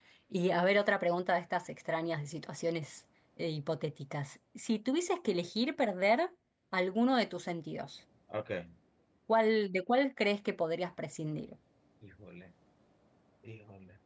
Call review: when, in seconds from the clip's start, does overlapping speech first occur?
none

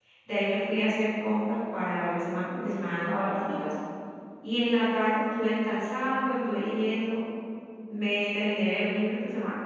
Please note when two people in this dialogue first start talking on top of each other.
none

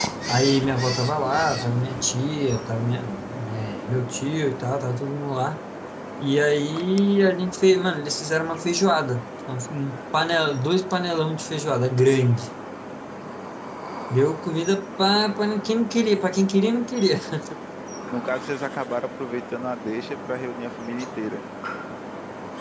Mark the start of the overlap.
none

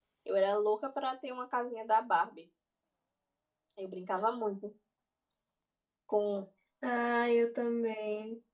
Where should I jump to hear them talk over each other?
none

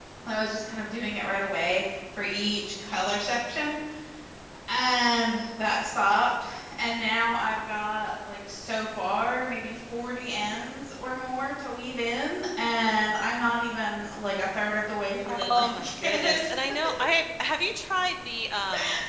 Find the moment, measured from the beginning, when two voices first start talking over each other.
15 s

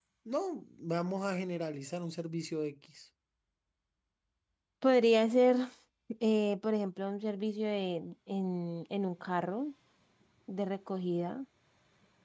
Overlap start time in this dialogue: none

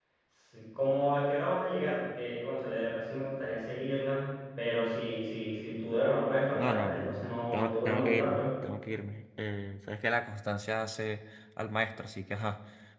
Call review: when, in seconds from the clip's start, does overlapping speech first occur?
7 s

